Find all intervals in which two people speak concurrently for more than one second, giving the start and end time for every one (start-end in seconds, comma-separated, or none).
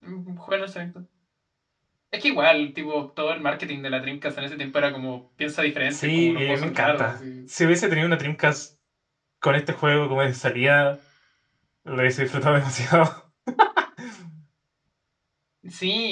5.9-7.2